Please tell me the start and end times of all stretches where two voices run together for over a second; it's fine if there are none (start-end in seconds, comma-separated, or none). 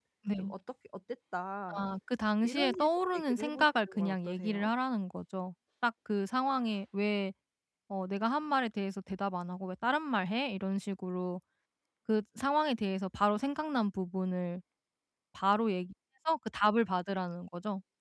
2.4-4.7